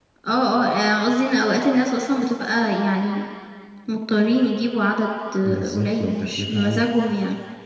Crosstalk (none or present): present